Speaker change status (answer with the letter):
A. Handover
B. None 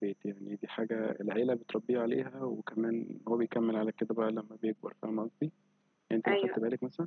B